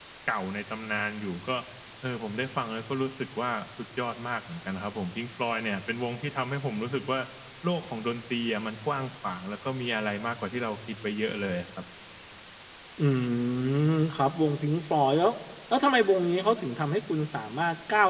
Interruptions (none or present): none